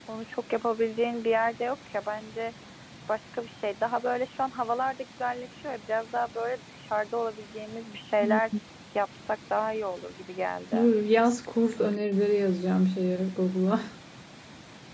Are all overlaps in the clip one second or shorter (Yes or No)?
Yes